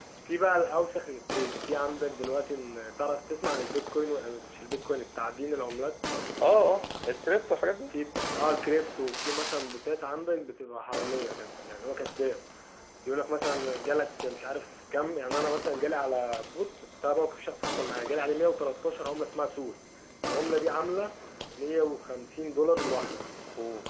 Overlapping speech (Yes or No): No